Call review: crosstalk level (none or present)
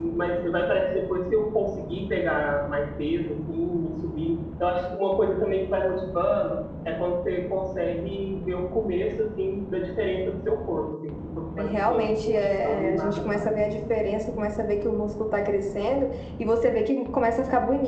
present